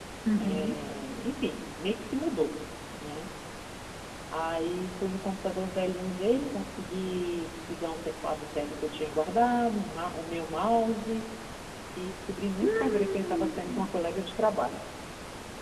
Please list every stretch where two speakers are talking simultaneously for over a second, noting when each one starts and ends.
12.6-13.9

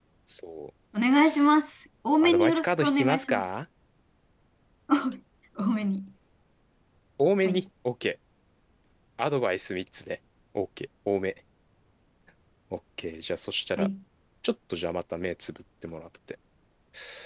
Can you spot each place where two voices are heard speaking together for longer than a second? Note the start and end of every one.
2.2-3.5

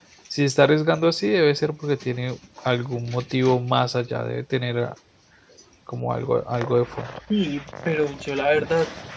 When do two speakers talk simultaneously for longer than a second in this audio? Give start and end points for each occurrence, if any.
none

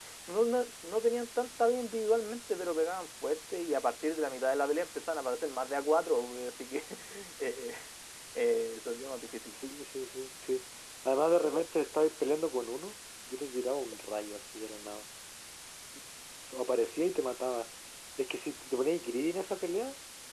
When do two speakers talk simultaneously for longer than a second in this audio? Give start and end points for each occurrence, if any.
none

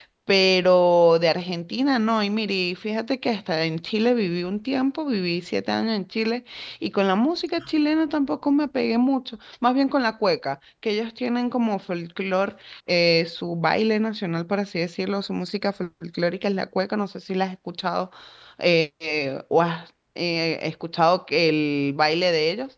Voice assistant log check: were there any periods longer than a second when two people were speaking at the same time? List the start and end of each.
none

